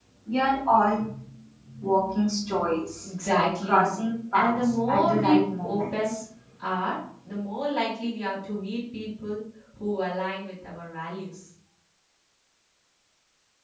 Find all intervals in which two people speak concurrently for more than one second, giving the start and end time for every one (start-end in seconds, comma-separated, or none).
4.3-6.2